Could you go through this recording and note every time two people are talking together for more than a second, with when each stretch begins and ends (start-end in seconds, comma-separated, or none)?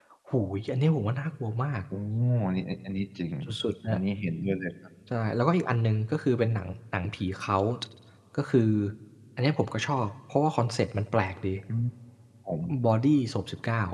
none